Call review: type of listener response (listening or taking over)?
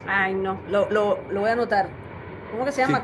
taking over